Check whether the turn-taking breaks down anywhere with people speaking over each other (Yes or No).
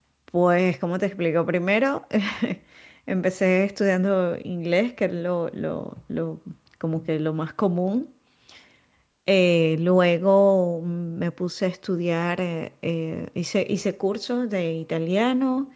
No